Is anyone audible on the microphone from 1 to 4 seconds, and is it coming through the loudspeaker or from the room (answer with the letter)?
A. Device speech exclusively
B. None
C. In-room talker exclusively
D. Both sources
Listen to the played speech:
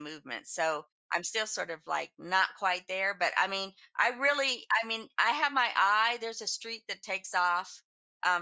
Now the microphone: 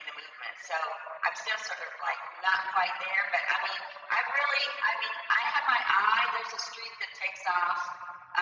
A